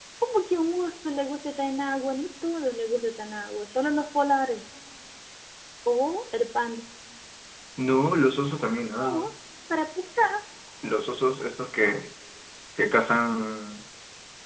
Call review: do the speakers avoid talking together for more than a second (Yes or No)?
Yes